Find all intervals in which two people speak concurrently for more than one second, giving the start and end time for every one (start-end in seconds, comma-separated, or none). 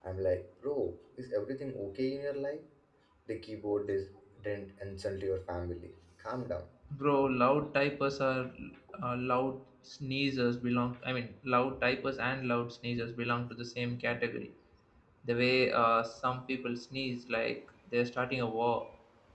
none